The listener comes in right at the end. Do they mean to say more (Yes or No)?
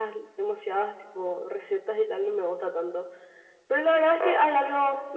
No